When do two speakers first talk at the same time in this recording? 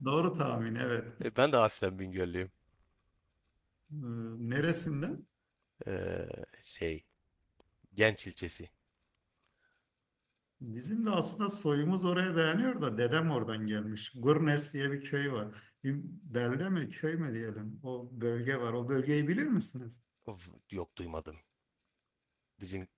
none

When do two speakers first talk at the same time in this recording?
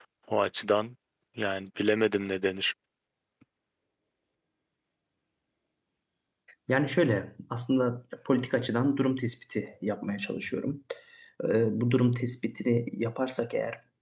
none

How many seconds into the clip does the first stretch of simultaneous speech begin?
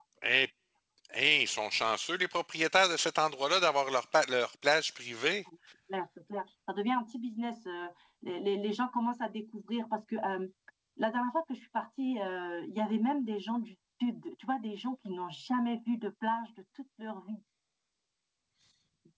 none

